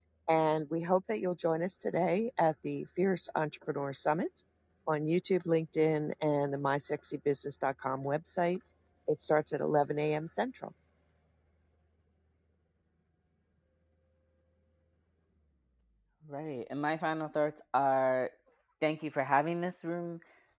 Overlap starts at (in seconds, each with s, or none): none